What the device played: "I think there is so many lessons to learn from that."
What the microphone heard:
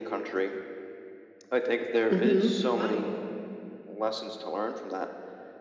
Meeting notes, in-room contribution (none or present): present